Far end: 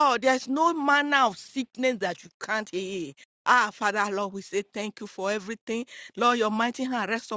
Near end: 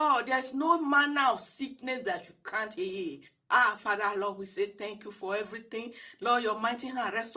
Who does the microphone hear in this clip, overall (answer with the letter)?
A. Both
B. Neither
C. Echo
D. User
C